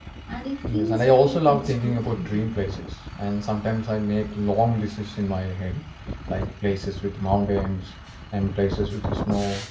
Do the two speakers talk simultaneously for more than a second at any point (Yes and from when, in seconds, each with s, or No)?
Yes, from 0.7 s